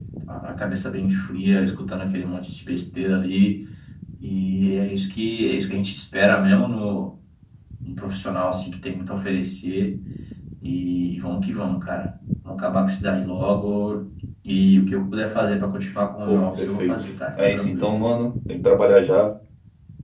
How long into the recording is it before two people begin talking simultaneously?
16 s

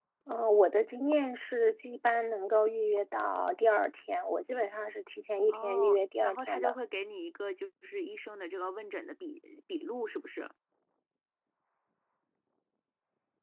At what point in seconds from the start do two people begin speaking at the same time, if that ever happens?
5 s

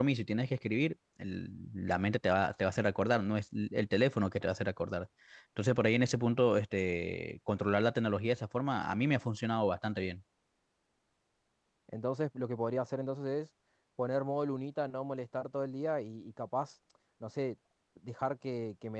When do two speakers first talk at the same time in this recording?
none

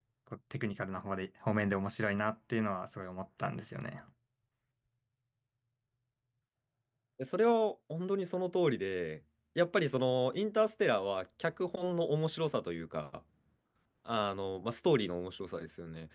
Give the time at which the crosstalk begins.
none

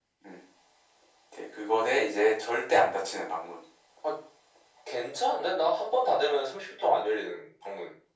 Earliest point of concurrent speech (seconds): none

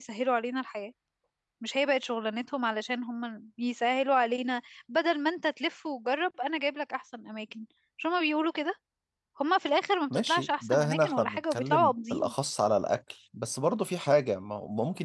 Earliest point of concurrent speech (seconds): 10 s

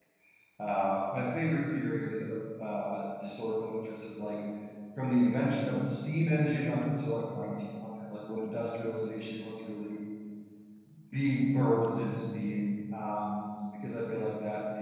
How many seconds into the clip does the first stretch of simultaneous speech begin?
none

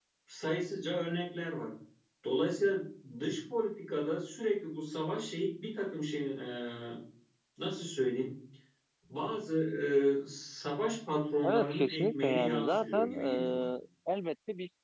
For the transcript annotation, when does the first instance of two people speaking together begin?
11 s

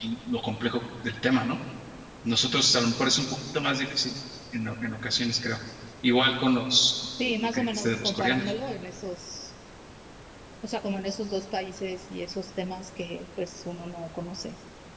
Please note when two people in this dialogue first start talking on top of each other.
7 s

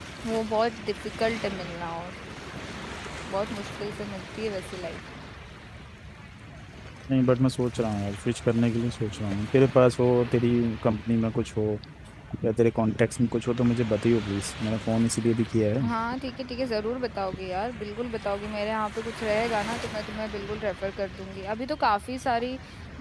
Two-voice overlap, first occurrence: none

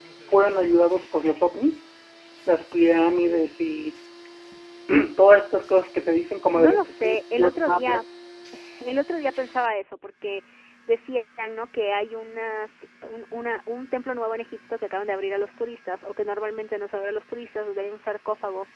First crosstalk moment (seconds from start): 7 s

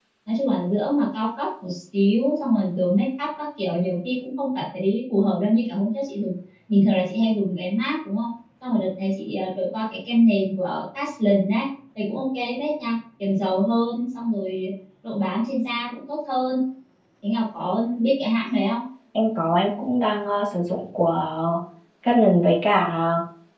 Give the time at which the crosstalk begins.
none

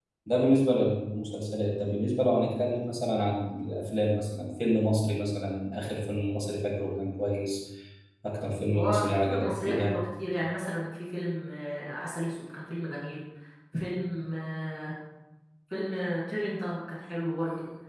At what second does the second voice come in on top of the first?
9 s

